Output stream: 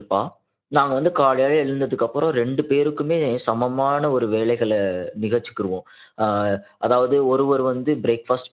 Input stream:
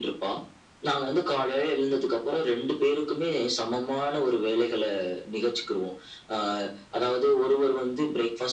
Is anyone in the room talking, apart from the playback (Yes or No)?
No